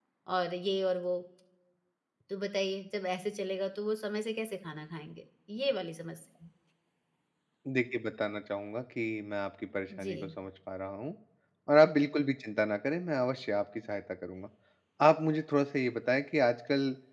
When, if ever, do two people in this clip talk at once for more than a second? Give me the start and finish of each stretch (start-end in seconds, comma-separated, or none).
none